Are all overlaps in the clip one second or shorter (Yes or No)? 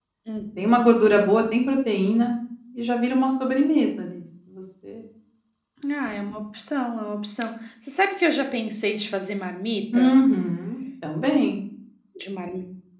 Yes